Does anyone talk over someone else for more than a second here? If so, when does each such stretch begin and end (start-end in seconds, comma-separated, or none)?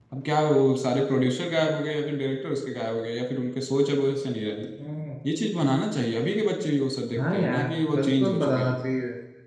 7.2-8.8